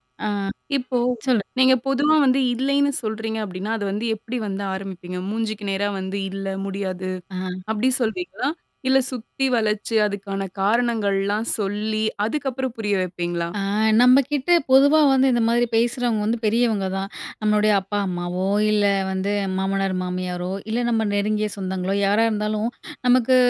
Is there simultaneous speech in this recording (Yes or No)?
No